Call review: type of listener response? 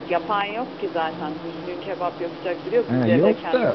taking over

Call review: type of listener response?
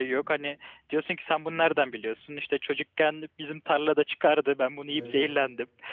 listening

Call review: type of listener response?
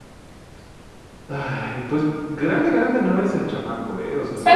listening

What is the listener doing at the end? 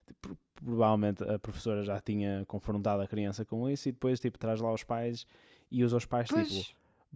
listening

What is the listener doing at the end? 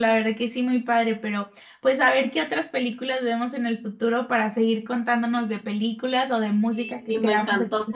taking over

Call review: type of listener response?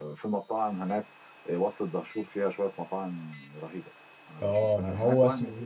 taking over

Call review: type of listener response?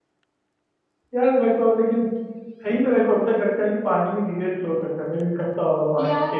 taking over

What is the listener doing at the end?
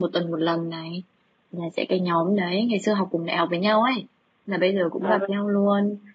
listening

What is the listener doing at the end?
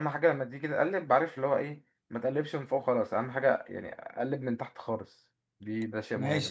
taking over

